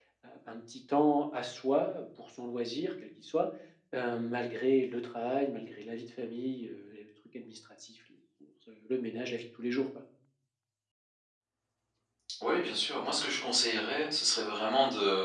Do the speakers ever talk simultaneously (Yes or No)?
No